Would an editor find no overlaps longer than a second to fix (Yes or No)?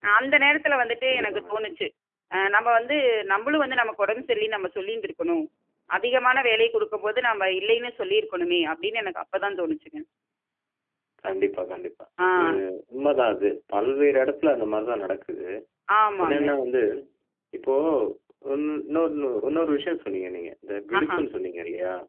Yes